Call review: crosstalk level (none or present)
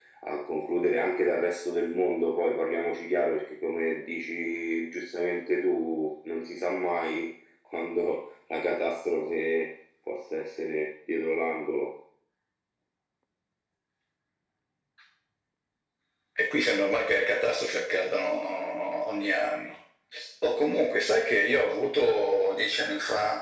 none